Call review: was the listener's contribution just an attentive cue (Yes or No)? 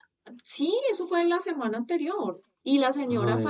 Yes